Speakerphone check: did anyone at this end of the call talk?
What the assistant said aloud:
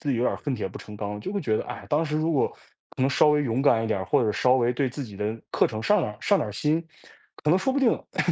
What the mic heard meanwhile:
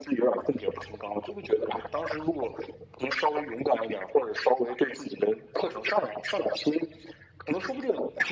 No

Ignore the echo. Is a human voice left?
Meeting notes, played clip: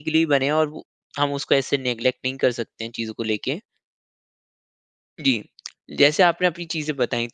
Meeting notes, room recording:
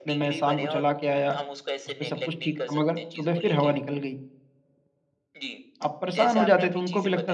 Yes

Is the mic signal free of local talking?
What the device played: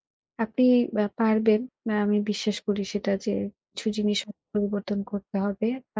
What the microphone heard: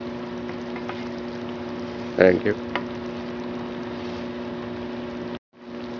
No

